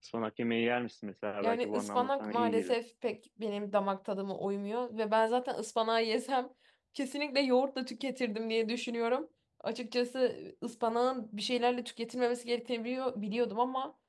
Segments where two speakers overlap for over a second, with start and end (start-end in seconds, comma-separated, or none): 1.4-2.8